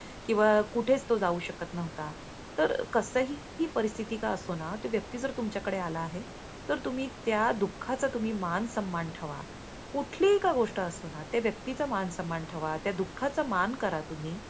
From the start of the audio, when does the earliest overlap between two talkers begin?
none

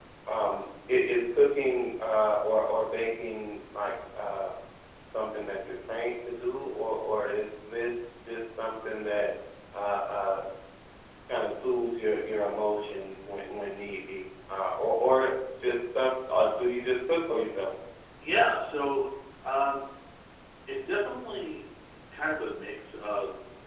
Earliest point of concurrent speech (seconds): none

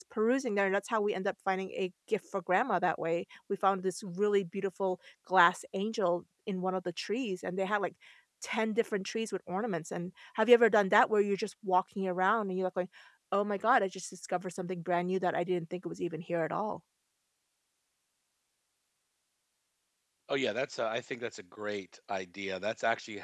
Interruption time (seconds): none

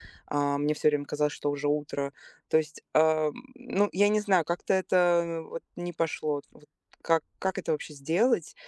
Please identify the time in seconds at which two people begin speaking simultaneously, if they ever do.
none

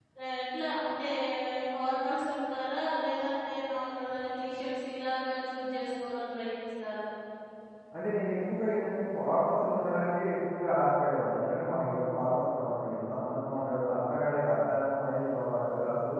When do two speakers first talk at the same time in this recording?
none

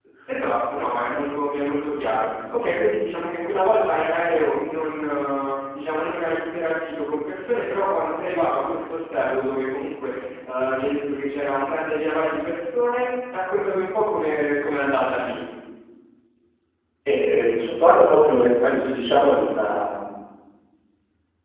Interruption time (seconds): none

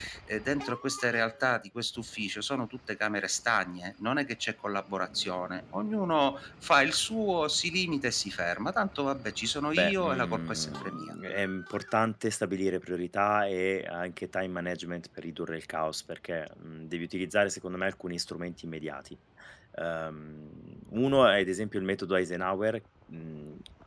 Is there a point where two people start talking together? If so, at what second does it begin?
9.8 s

